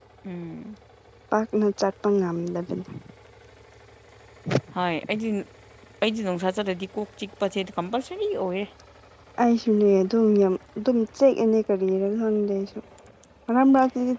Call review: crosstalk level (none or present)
none